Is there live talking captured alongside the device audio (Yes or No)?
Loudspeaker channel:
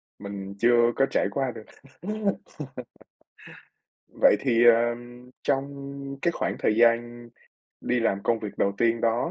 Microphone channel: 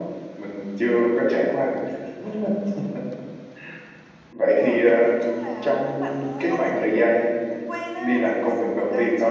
Yes